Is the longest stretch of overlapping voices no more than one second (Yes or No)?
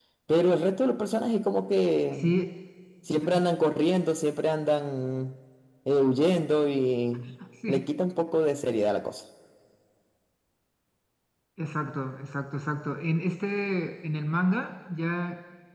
Yes